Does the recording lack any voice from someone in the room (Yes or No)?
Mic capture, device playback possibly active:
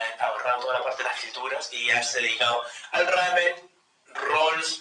Yes